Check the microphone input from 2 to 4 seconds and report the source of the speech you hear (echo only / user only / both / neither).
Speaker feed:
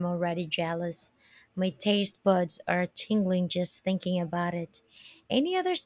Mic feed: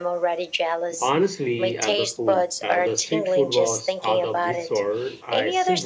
both